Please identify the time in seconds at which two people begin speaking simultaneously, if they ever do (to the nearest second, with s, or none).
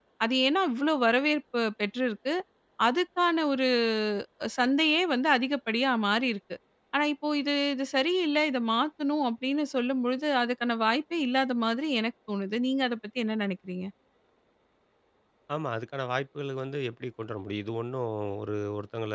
none